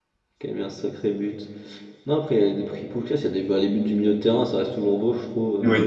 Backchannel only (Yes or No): No